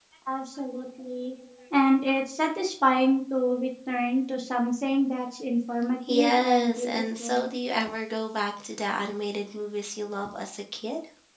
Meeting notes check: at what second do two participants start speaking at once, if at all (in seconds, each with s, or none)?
6.1 s